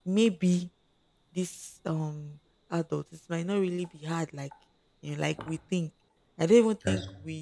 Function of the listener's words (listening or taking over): listening